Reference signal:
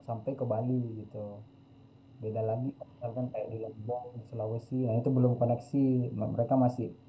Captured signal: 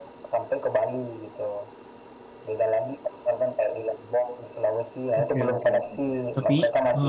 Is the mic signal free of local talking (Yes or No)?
No